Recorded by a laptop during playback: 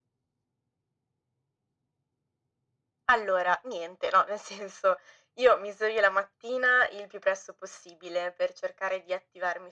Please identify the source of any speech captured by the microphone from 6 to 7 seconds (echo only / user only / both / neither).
echo only